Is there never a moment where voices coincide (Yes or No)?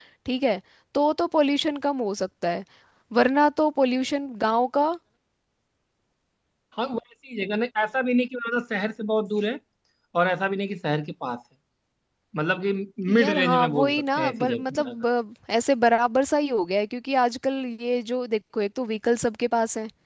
No